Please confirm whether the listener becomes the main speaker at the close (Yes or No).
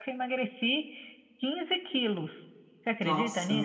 Yes